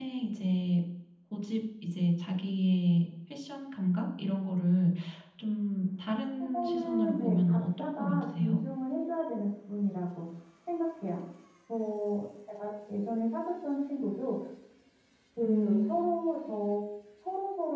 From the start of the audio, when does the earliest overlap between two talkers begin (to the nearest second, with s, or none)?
7 s